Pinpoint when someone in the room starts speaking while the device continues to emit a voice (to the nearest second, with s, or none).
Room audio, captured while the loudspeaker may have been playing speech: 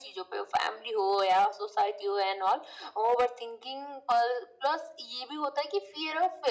none